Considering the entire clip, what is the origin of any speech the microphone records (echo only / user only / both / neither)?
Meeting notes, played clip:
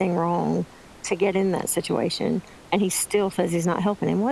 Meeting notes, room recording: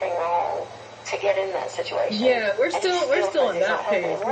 both